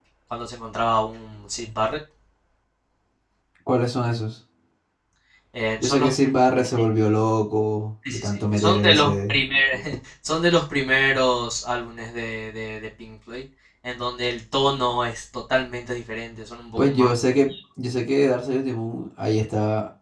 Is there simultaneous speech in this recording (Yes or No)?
Yes